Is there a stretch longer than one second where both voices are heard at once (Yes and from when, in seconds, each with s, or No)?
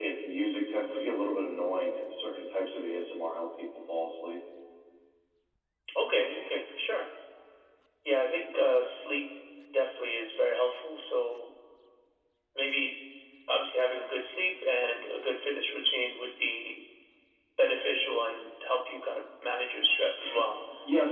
No